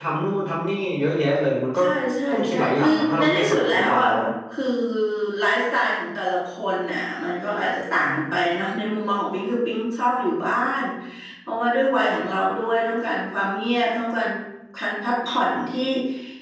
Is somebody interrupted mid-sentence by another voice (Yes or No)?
Yes